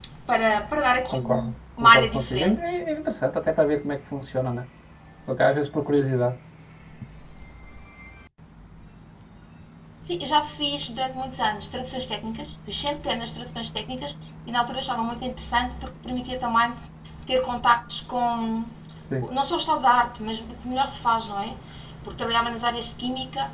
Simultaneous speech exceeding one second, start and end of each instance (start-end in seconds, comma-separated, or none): 1.1-2.6